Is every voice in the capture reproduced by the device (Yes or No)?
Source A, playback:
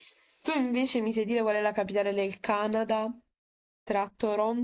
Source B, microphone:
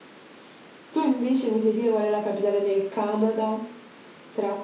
Yes